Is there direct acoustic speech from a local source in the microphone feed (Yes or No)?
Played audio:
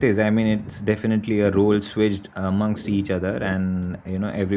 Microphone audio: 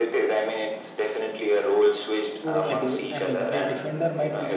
Yes